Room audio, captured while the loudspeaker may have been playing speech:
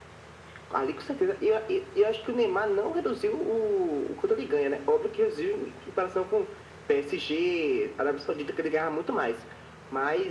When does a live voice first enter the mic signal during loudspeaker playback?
none

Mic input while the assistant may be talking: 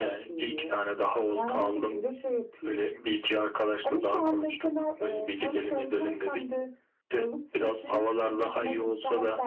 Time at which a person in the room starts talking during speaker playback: none

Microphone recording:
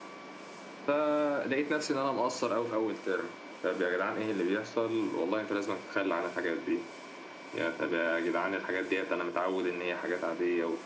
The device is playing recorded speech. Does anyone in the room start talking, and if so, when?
none

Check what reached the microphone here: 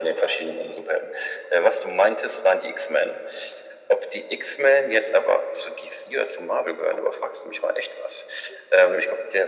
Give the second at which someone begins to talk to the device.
none

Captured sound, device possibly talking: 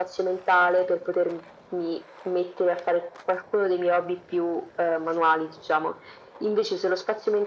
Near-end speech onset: none

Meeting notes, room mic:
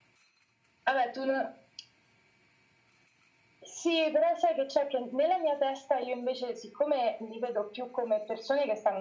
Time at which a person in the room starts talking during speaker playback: none

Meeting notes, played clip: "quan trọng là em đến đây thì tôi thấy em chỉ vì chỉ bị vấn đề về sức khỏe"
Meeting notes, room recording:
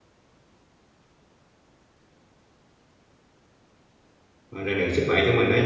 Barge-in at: 4.5 s

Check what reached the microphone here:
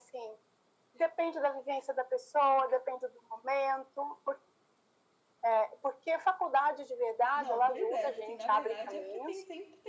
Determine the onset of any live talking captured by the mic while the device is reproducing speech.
7.3 s

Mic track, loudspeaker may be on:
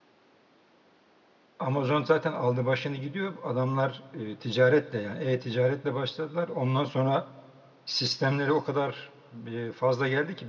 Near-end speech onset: 1.6 s

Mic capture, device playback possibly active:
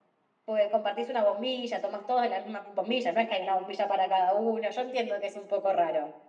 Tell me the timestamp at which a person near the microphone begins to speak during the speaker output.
none

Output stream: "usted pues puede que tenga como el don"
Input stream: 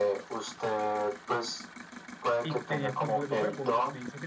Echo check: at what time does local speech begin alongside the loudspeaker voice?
2.4 s

